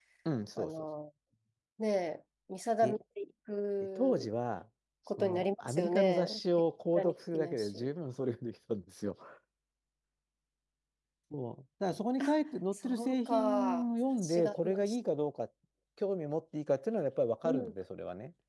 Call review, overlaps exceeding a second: present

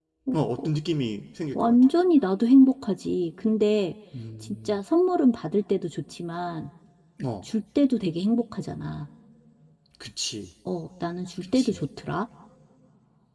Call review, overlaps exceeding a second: none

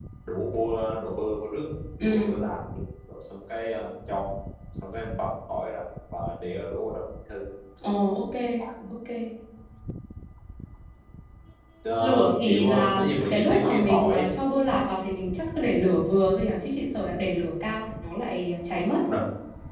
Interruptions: present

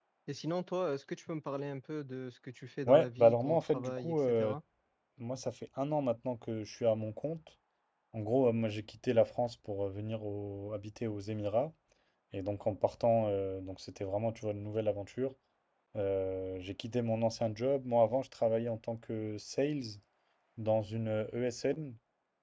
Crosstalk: present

